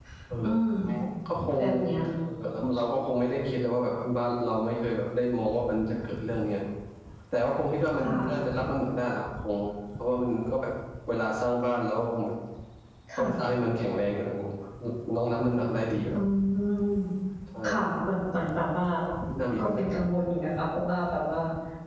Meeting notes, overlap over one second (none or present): none